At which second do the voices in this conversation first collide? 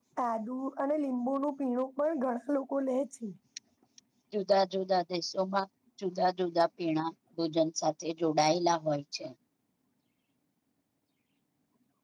none

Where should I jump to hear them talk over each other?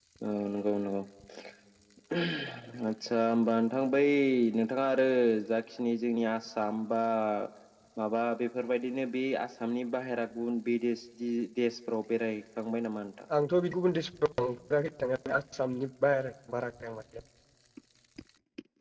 none

